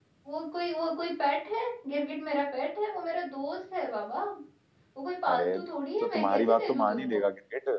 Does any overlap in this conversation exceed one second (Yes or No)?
Yes